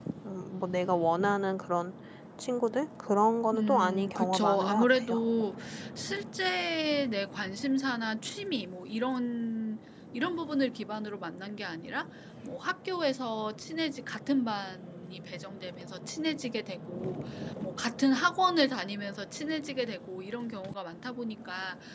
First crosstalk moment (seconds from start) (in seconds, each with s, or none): 3.5 s